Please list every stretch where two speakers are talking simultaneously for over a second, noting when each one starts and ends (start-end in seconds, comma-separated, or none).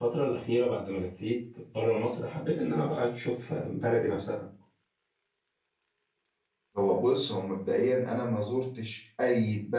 none